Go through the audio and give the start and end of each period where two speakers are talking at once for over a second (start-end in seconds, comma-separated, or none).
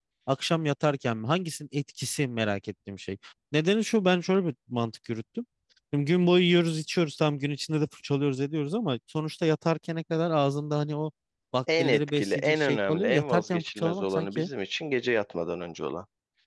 11.8-14.5